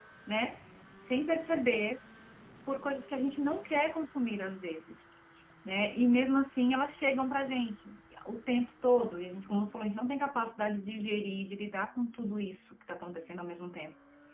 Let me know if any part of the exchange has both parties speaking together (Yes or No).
No